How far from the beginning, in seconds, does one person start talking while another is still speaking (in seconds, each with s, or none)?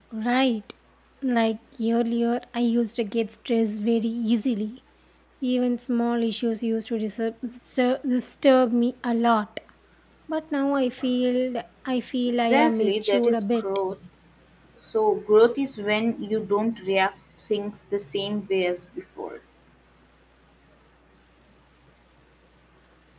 12.4 s